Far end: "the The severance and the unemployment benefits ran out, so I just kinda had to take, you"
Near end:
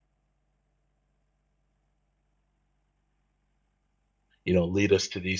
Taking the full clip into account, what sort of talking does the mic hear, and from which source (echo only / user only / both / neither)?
user only